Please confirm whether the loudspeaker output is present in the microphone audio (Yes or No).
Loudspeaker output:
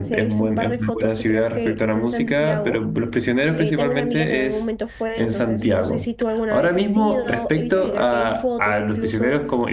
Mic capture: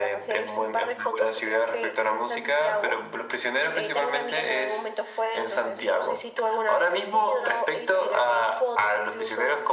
Yes